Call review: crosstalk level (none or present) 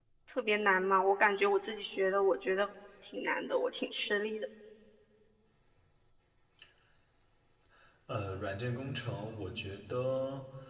none